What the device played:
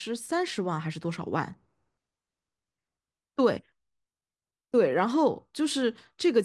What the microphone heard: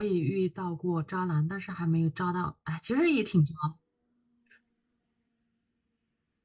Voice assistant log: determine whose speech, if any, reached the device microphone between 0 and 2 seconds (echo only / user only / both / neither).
user only